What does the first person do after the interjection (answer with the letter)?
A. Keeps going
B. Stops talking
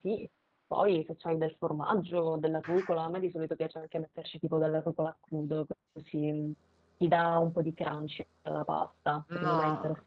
B